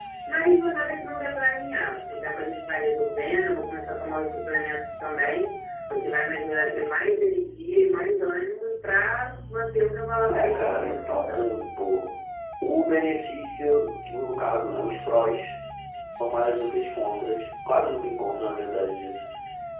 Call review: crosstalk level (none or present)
present